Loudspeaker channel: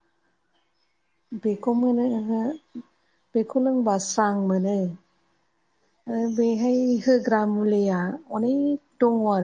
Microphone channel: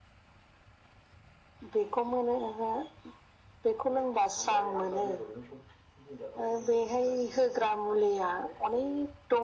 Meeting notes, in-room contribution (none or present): present